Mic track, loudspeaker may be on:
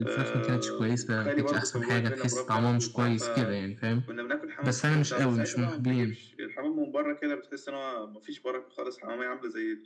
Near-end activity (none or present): present